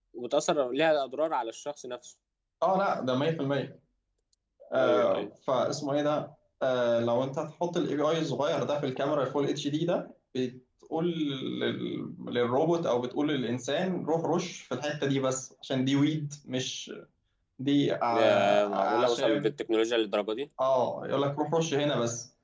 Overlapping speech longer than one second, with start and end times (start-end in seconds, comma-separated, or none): 18.1-19.5